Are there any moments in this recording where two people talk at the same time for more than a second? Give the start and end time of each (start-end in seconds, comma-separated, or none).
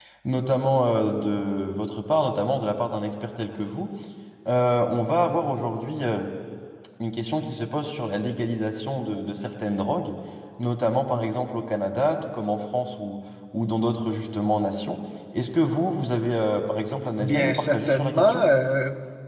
17.2-18.5